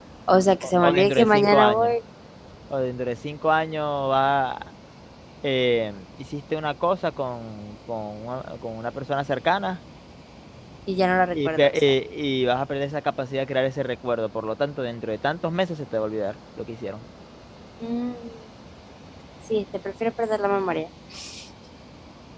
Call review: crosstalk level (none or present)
present